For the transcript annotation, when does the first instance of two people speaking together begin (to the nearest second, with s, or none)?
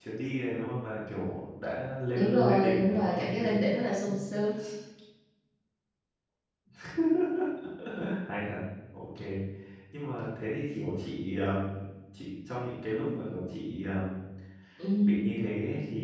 2 s